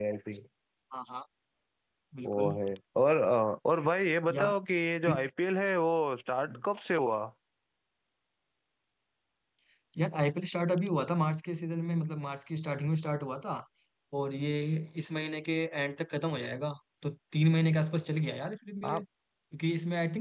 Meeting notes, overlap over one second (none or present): none